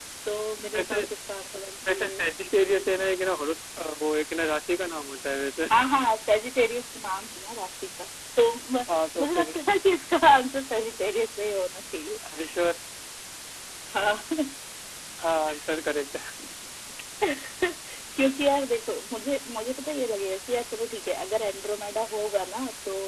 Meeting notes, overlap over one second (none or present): none